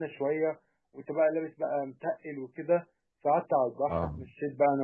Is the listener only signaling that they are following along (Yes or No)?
Yes